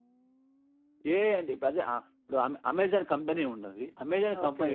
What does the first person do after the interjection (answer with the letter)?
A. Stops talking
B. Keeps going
B